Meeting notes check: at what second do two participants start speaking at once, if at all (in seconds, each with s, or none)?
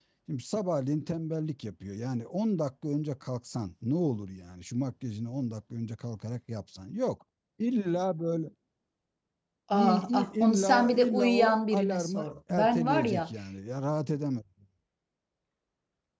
9.8 s